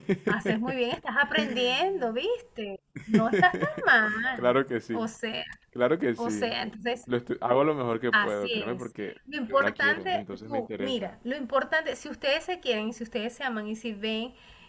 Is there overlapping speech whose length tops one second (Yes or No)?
Yes